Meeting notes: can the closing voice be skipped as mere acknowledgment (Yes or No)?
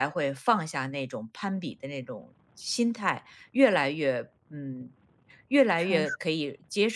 Yes